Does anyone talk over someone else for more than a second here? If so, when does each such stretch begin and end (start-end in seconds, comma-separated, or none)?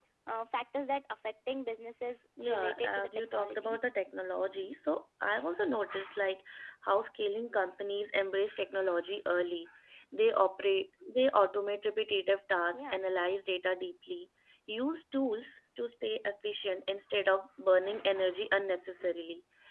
2.4-3.8